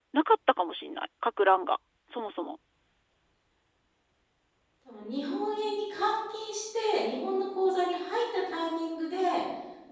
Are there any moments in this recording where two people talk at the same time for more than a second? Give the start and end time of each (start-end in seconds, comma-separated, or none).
none